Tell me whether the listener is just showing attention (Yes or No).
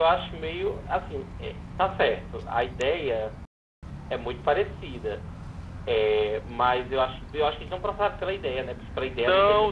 No